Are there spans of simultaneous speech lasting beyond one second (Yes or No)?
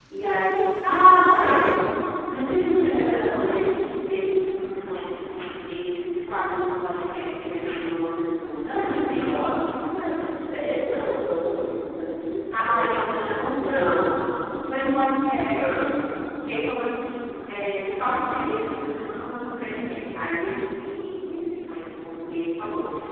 No